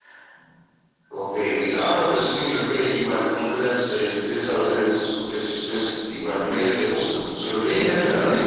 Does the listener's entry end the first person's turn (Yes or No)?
Yes